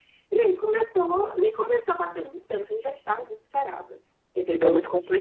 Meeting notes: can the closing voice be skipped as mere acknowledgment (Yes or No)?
No